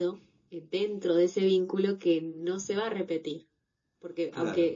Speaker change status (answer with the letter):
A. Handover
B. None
B